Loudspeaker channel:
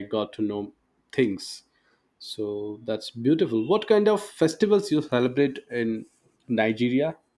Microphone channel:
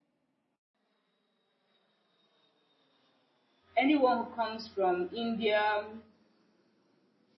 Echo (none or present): none